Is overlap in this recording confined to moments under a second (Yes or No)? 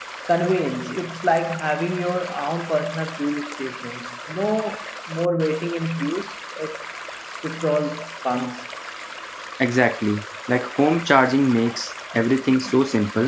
Yes